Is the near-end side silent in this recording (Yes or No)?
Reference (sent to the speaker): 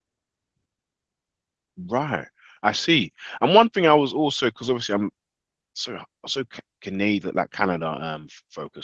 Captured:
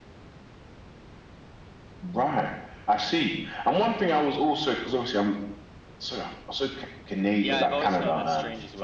No